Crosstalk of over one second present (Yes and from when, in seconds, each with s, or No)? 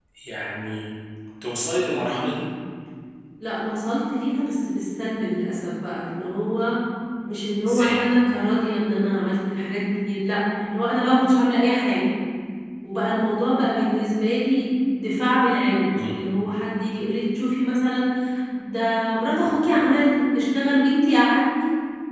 No